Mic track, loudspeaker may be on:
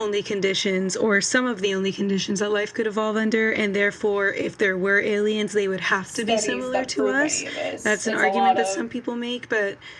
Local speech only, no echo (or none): studies that prove any of this. It's a lot of